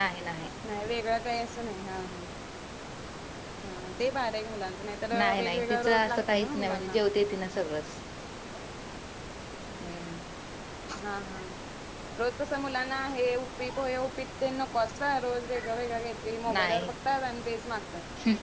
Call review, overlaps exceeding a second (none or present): present